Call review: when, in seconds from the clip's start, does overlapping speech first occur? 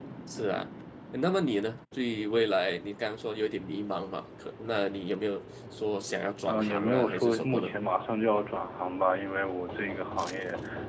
6 s

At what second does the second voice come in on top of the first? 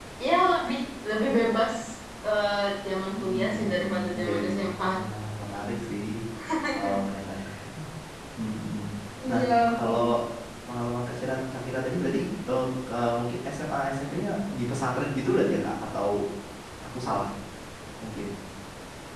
3 s

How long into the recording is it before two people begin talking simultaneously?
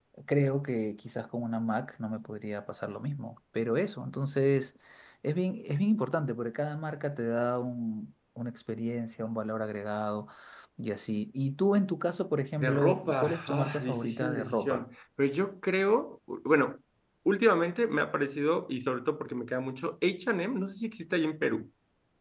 13 s

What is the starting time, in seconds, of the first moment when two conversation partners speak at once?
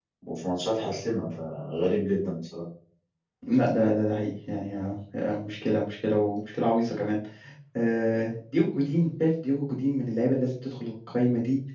none

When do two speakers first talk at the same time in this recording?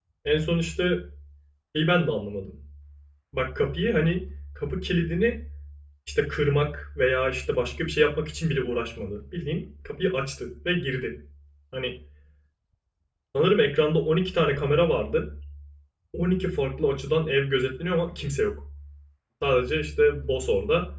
none

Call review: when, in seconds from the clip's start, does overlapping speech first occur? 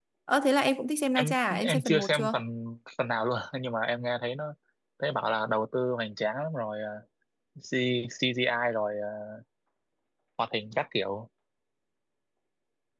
1 s

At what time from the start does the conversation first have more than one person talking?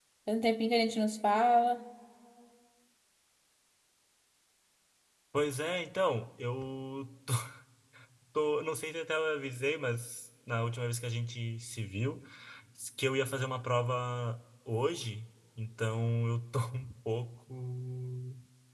none

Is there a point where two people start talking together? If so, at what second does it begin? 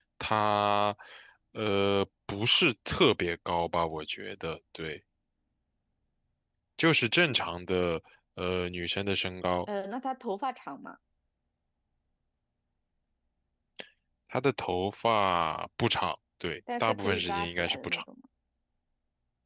17 s

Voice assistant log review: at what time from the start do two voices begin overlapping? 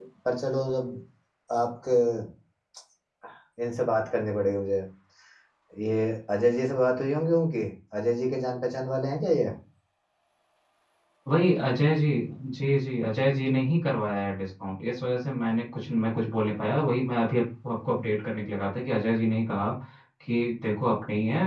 none

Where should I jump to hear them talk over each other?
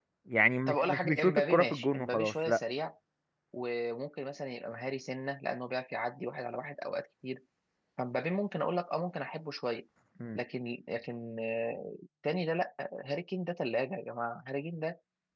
1 s

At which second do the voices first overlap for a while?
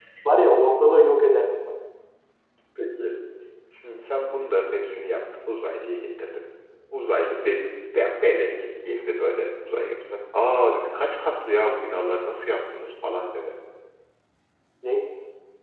none

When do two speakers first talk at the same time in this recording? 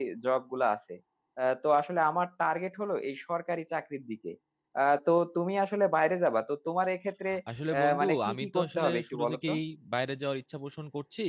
8 s

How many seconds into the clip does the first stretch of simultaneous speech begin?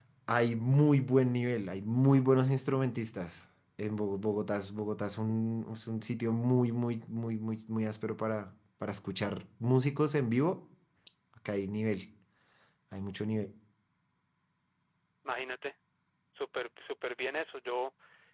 none

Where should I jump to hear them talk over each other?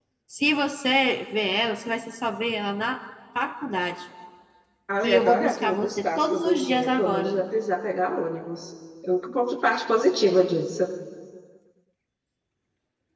5 s

